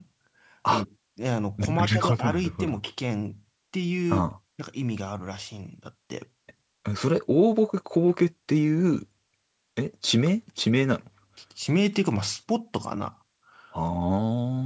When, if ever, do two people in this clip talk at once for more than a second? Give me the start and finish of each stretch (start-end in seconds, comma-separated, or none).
1.6-2.8